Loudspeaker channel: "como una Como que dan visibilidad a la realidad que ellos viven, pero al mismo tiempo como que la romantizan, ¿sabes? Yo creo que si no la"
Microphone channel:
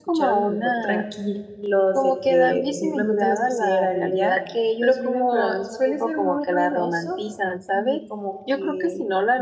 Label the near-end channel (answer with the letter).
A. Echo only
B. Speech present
B